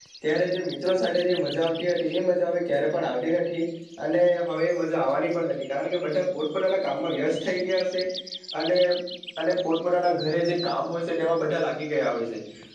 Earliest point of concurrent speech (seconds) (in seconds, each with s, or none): none